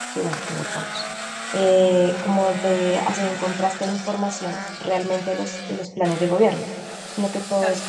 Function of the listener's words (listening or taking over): listening